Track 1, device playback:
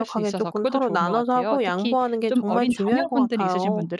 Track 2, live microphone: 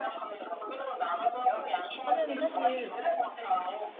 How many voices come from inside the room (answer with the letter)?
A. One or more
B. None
A